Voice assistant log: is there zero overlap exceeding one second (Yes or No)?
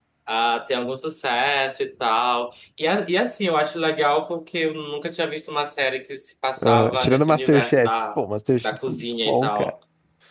No